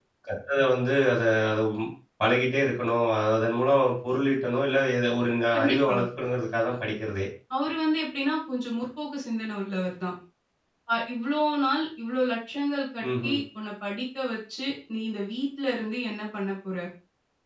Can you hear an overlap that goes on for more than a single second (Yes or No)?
No